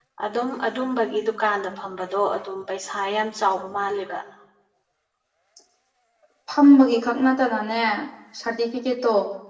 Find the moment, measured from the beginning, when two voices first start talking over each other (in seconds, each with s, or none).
none